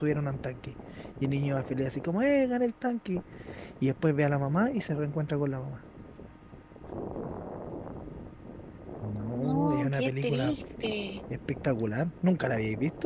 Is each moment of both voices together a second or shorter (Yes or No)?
No